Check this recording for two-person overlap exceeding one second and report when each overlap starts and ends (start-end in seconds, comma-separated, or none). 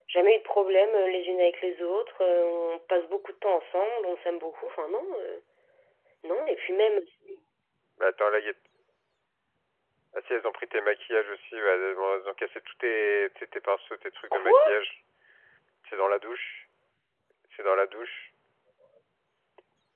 none